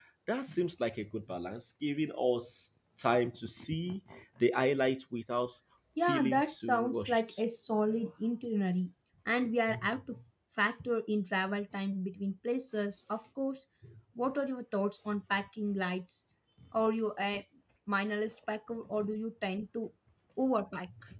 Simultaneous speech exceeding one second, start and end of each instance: 6.1-7.4

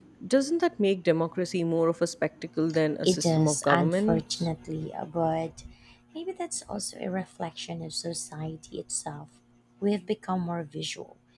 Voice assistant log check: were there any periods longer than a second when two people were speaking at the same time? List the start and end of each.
3.0-4.5

